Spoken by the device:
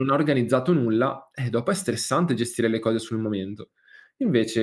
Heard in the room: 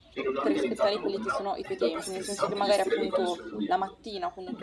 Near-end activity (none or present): present